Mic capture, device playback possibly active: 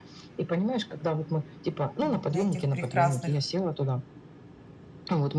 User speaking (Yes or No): Yes